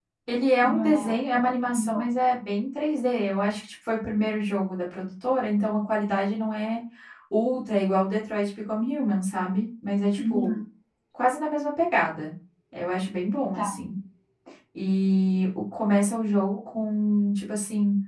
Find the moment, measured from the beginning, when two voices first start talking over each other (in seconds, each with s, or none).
0.6 s